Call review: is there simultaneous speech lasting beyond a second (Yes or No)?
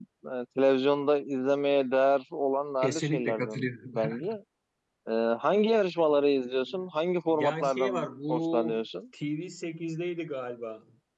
Yes